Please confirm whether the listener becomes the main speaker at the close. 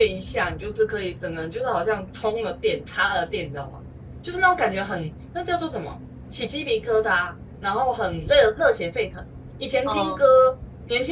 No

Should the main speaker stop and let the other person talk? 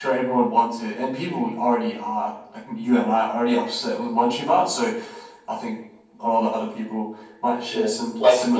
Yes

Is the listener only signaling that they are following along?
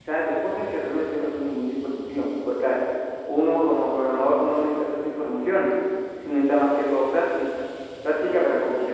No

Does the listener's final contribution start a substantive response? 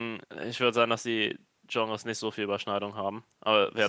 Yes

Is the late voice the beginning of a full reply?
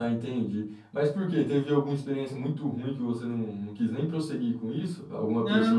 Yes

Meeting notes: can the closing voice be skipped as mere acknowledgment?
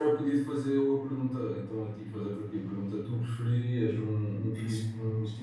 Yes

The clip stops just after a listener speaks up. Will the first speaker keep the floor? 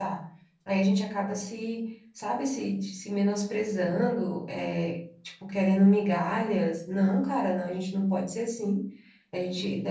Yes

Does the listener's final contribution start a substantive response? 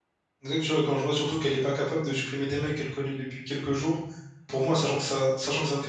No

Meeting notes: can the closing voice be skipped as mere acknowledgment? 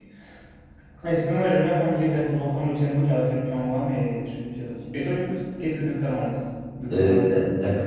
No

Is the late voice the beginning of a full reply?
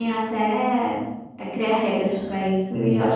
Yes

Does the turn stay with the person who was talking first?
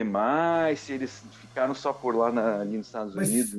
No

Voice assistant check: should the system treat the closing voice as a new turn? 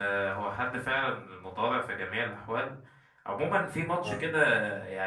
No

